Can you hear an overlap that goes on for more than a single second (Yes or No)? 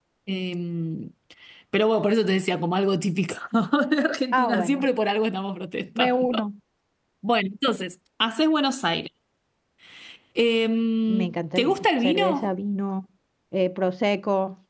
Yes